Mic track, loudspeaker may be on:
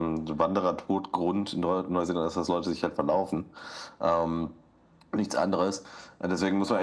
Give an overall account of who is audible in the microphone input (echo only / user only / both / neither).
echo only